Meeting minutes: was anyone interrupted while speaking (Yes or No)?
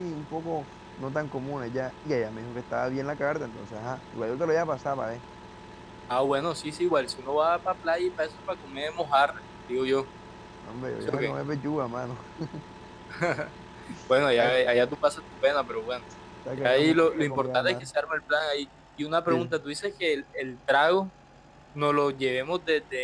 Yes